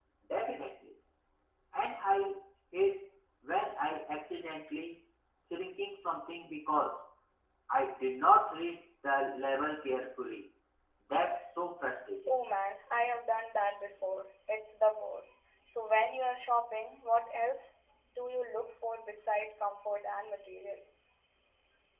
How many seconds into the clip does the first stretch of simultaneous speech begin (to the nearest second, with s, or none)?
none